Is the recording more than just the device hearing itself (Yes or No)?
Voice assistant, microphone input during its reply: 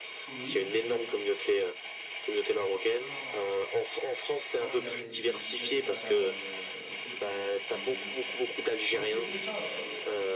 Yes